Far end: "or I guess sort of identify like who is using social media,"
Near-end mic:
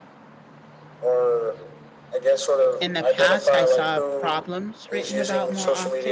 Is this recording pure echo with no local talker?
No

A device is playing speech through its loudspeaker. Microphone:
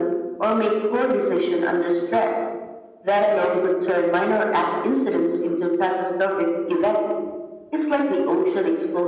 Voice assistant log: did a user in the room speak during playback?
No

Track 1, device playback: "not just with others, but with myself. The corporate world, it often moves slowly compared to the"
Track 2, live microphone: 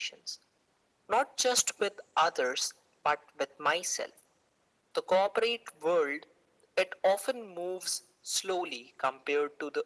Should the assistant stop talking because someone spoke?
No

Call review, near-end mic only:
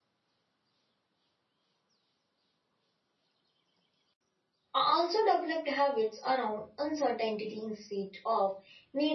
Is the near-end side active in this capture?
Yes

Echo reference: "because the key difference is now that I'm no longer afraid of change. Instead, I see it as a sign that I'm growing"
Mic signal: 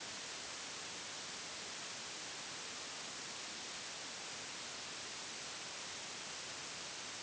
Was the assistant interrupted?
No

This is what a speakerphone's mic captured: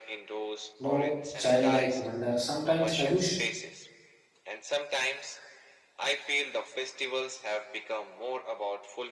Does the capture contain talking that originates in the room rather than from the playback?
Yes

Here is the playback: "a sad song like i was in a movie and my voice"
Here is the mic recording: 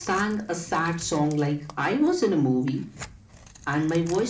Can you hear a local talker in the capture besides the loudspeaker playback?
No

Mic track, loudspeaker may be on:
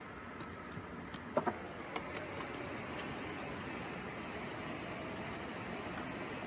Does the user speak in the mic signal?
No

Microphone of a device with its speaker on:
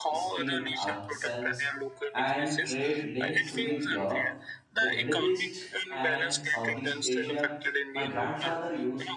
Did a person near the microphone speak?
Yes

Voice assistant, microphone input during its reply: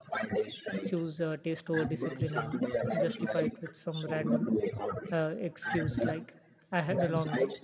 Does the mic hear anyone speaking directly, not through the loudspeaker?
Yes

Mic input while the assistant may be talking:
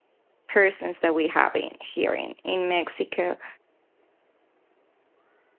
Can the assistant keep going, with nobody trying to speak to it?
No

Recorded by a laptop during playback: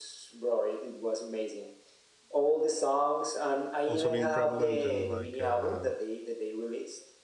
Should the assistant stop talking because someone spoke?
Yes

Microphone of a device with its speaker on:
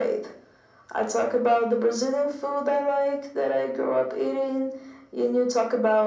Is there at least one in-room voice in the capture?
No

